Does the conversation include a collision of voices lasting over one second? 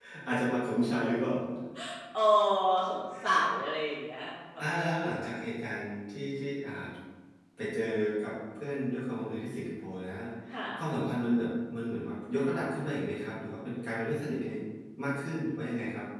No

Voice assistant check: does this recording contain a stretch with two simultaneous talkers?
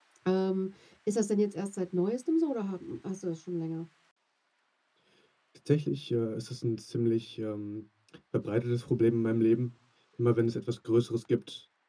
No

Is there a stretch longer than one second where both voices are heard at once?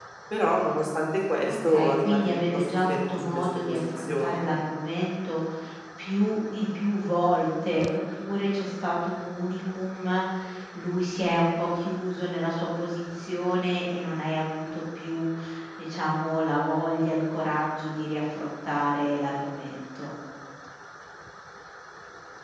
Yes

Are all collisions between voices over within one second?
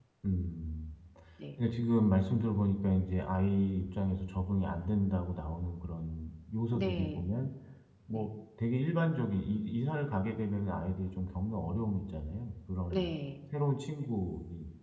Yes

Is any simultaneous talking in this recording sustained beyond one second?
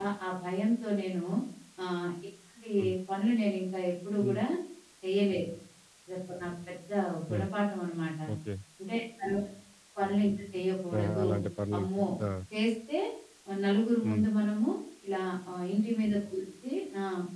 No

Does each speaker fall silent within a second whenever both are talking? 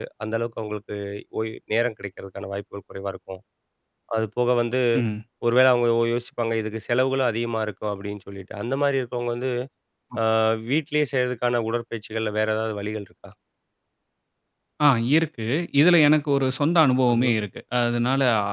Yes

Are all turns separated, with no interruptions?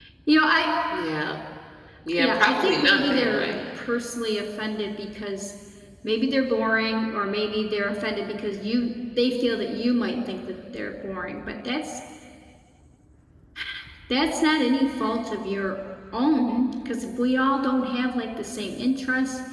No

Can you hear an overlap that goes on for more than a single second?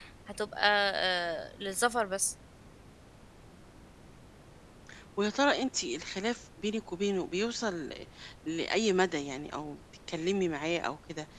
No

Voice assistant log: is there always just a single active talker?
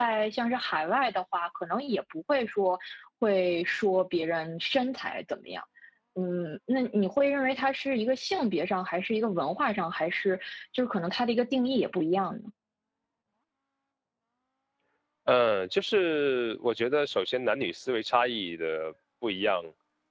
Yes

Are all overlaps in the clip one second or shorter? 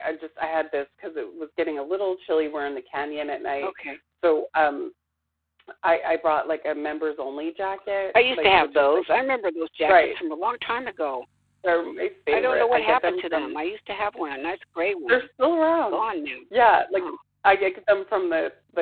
No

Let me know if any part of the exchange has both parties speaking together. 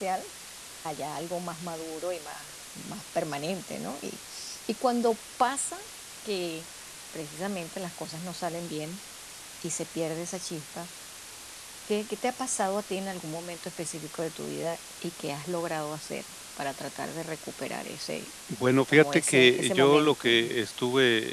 Yes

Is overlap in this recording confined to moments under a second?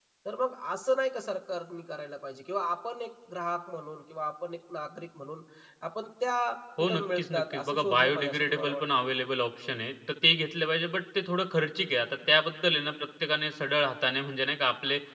No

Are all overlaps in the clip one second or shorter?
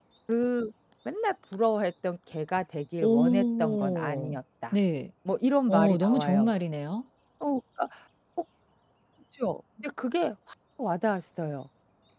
No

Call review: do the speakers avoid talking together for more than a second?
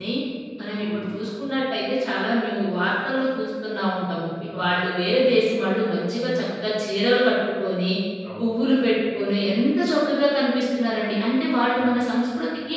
Yes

